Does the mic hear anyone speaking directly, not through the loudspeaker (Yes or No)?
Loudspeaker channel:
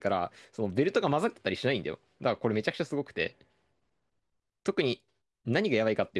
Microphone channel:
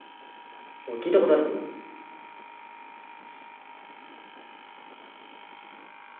Yes